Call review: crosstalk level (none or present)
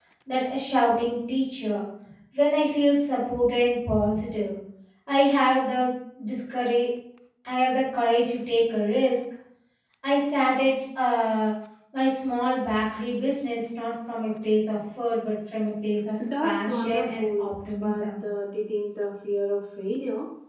present